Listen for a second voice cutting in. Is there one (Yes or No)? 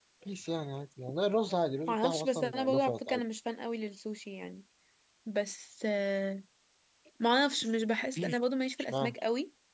Yes